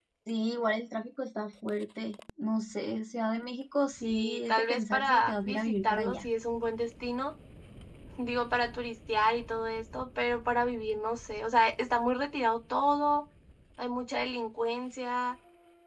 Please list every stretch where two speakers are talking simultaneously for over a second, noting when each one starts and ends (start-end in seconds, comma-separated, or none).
4.0-6.2